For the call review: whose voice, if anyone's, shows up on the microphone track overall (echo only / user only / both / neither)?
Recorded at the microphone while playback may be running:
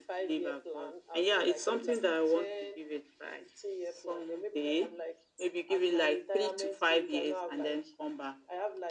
echo only